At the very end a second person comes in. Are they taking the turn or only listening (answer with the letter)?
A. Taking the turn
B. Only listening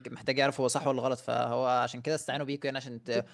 B